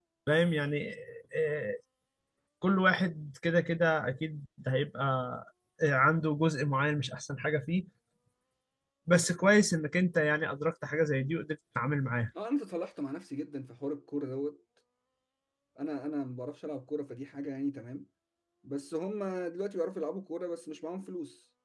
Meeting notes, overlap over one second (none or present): none